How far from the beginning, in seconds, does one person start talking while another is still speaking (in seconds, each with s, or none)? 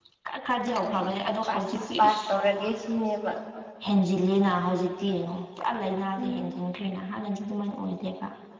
0.8 s